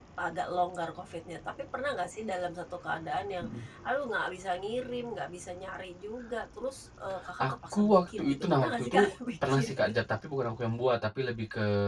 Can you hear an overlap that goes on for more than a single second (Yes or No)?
Yes